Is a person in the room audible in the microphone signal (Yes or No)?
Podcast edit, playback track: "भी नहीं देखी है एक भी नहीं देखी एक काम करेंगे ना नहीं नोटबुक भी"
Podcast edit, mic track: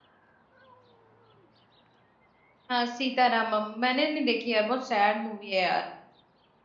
Yes